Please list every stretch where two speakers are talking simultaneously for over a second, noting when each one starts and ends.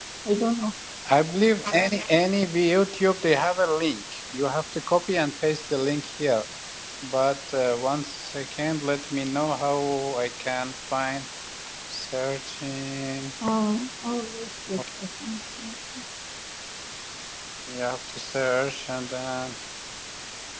none

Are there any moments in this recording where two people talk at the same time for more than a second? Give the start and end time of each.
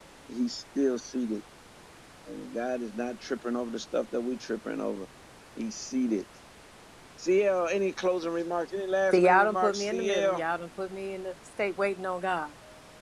9.1-10.4

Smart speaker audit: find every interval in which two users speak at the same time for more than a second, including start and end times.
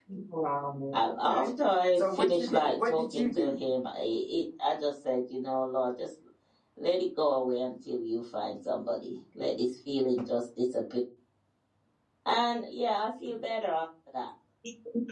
1.9-3.5

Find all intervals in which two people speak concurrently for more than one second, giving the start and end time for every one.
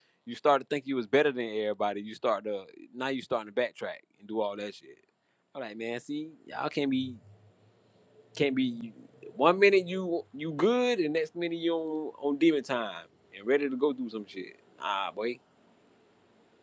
none

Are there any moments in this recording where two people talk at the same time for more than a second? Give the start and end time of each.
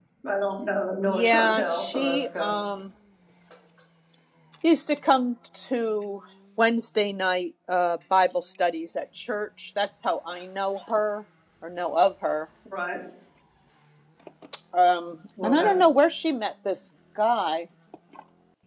1.1-2.5

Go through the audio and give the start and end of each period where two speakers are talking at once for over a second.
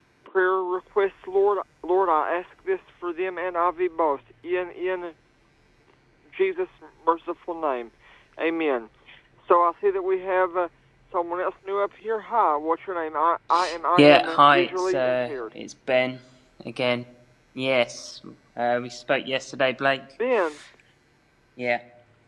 14.0-15.3

